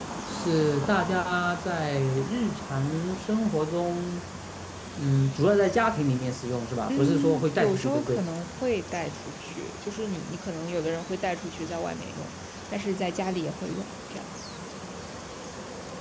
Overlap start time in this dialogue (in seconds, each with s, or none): 6.9 s